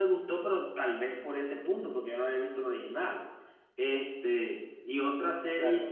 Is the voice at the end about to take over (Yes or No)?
Yes